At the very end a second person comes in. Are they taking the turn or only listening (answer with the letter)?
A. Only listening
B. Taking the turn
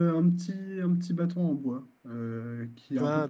A